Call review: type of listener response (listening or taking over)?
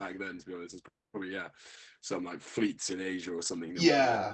taking over